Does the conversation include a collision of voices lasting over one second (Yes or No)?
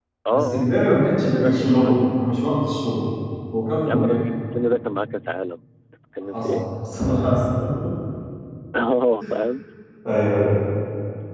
Yes